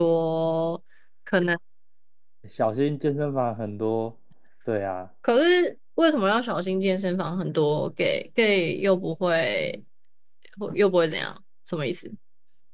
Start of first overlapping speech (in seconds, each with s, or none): none